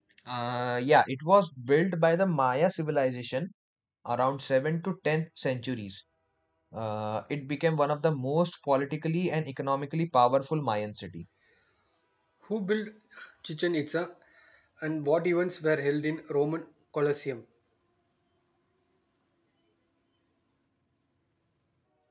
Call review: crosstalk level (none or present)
none